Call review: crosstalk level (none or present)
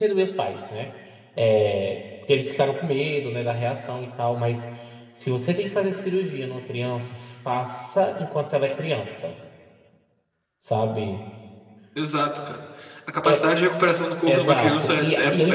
present